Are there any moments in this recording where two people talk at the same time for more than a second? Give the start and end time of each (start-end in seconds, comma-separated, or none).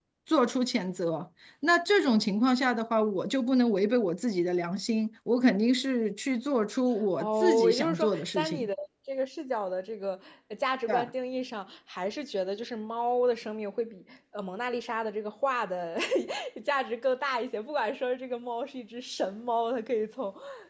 7.2-8.7